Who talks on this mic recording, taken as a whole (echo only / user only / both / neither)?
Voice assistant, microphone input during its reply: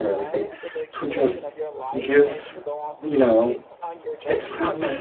both